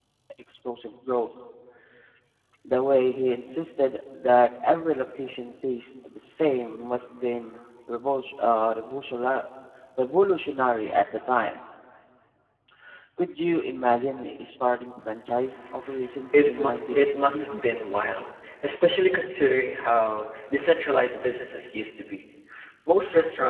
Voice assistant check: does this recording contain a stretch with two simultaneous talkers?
Yes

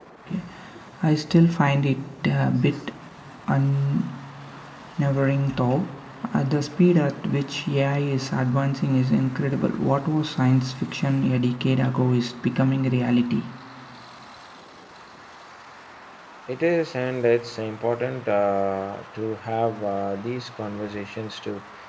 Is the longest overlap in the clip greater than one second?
No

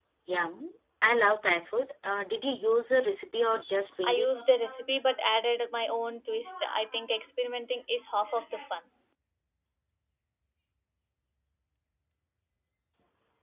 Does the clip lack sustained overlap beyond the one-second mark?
Yes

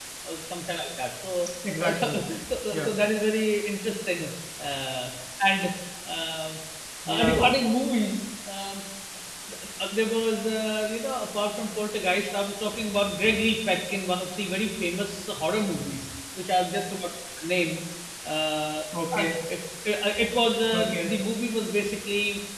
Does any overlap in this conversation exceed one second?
No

